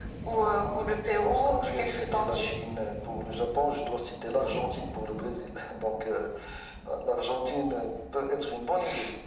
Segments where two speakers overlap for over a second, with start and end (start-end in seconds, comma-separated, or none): 1.1-2.5